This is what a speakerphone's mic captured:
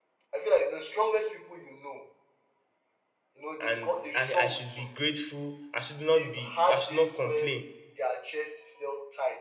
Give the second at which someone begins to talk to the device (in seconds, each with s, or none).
3.6 s